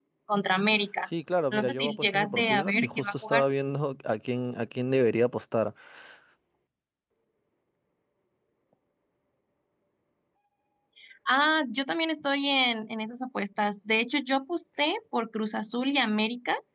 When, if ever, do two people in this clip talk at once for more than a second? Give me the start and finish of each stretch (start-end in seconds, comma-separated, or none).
1.5-3.4